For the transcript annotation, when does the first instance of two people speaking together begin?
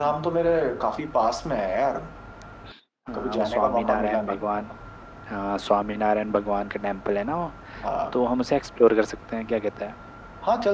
3 s

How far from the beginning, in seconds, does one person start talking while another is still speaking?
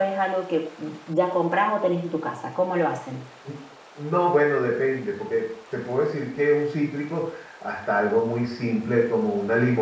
none

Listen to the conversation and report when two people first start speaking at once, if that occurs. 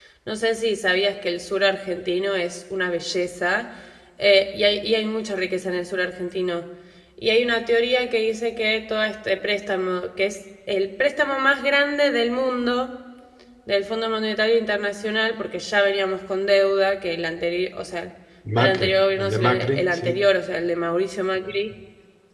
19 s

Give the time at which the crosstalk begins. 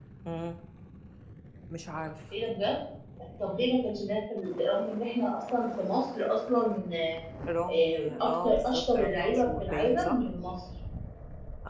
8 s

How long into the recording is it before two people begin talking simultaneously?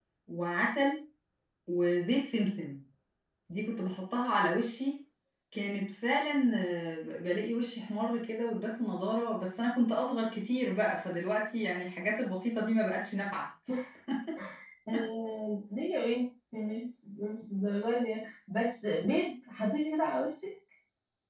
none

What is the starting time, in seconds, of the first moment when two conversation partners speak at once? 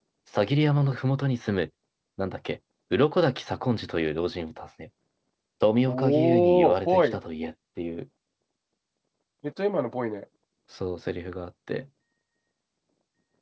6 s

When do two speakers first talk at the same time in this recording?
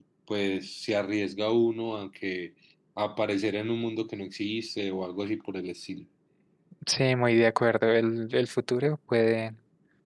none

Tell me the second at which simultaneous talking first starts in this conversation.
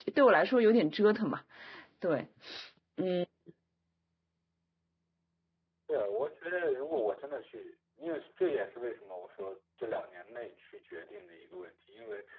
none

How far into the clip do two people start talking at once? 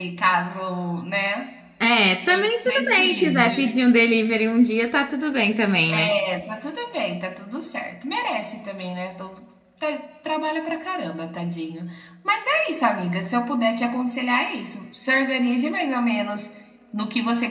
2 s

